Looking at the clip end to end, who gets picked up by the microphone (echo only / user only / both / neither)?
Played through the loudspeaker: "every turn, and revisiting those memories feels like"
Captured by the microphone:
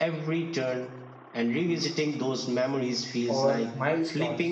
both